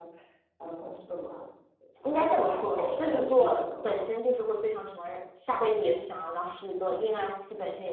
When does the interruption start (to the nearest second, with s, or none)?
2 s